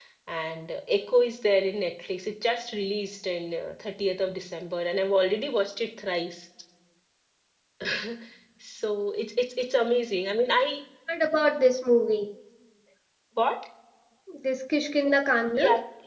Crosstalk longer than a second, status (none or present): none